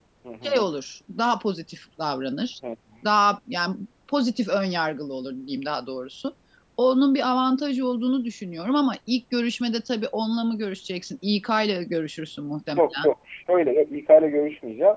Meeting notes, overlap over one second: none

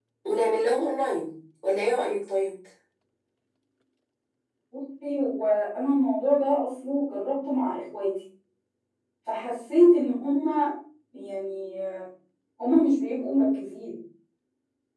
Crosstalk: none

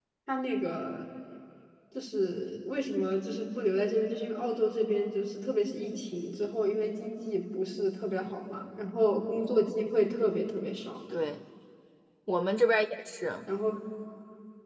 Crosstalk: none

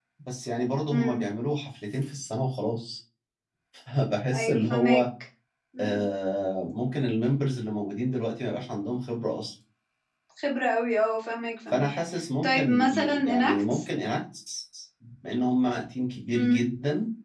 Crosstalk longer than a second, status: present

